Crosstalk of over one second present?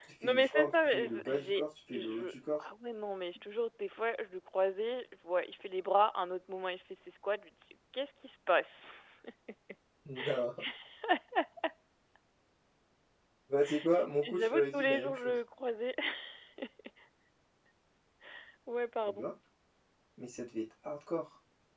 Yes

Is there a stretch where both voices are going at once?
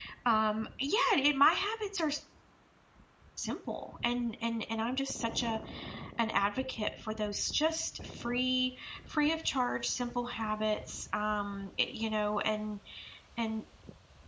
No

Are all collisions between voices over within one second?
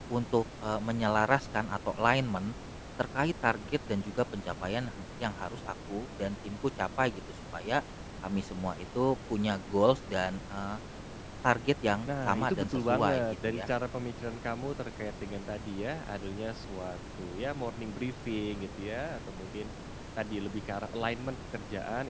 No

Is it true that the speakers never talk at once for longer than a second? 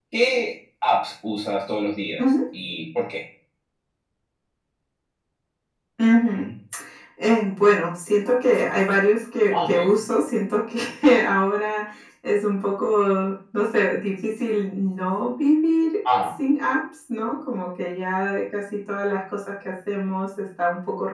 Yes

